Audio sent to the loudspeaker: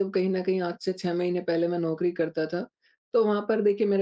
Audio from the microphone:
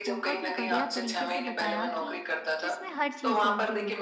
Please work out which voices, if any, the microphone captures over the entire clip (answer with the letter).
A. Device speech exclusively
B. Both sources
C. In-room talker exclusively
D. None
B